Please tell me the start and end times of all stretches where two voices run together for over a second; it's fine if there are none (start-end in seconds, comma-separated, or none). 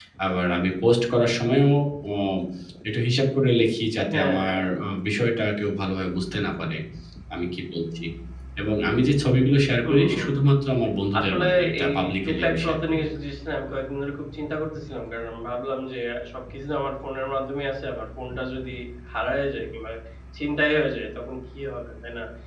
11.2-13.1